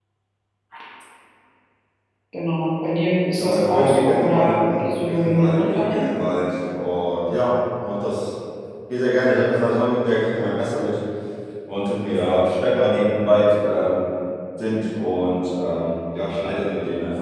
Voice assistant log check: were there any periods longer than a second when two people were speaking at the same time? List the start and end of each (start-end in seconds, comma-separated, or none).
3.4-6.1